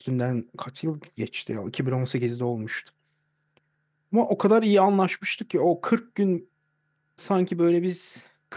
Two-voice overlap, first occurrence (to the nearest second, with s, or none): none